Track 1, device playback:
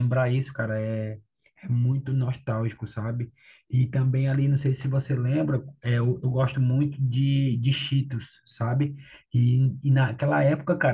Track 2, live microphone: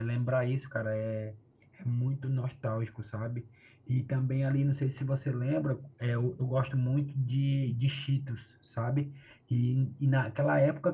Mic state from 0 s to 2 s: echo only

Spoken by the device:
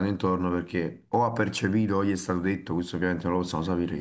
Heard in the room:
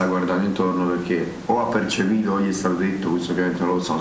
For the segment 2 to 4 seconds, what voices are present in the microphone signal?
echo only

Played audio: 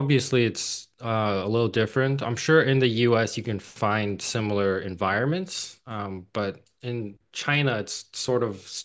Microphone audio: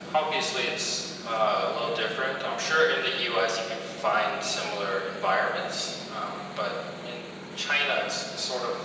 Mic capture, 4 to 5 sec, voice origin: echo only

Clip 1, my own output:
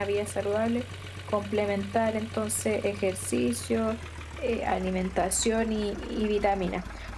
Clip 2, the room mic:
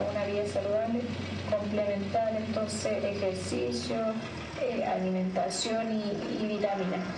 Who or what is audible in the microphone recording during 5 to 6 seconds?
echo only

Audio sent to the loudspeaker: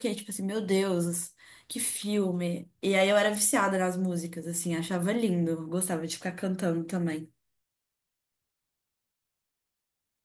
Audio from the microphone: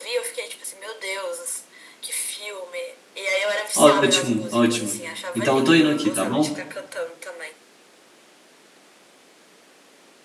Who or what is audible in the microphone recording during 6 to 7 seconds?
both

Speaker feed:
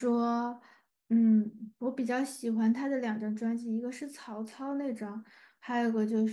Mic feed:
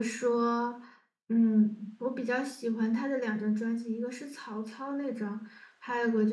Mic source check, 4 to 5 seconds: echo only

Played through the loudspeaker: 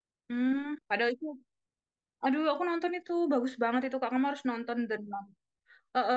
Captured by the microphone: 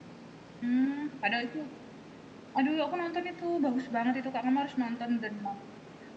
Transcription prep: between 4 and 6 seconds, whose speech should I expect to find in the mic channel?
echo only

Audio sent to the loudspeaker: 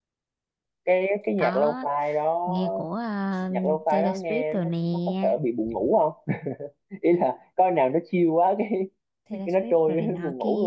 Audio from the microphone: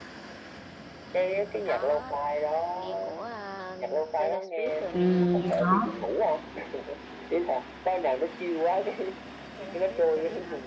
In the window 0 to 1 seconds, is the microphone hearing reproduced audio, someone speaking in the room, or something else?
neither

